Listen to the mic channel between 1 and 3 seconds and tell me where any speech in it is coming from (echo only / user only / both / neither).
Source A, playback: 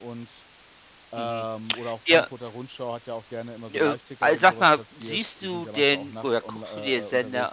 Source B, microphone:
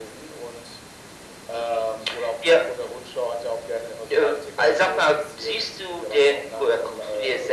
echo only